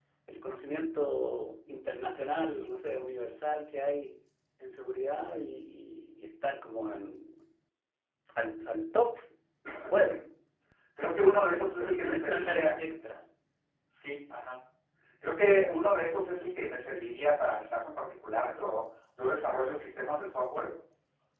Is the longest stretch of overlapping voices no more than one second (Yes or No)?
No